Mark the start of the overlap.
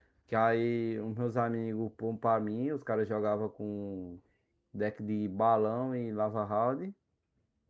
none

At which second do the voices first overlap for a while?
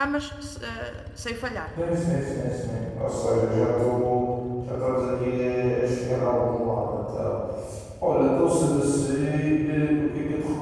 none

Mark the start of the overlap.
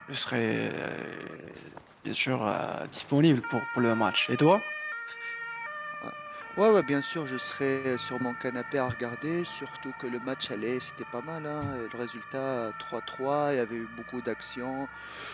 none

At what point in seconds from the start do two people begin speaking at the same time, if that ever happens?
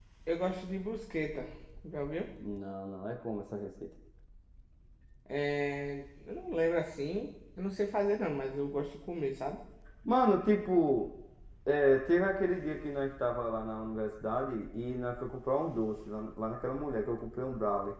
none

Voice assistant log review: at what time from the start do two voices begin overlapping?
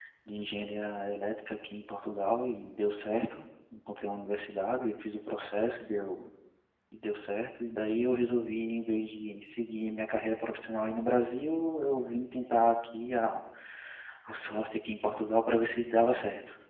none

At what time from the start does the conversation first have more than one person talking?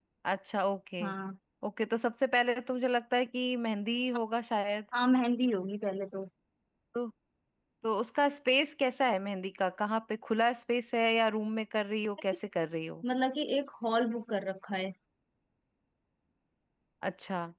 none

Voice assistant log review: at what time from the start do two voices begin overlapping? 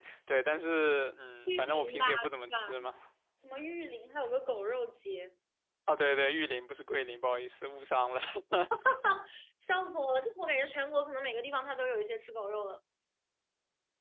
1.5 s

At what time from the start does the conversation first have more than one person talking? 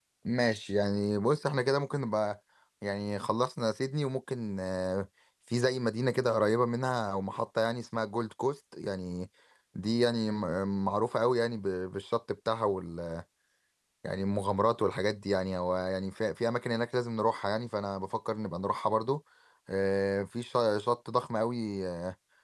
none

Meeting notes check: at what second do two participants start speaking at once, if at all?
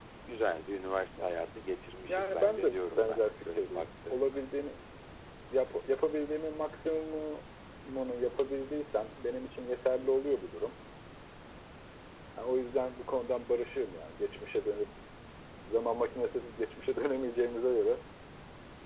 2.1 s

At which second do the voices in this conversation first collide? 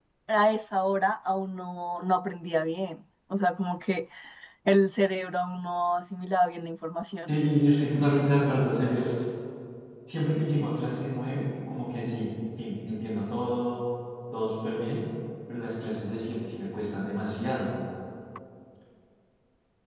none

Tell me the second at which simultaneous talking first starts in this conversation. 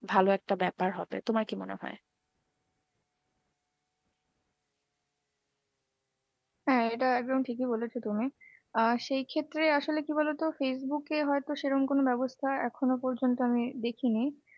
none

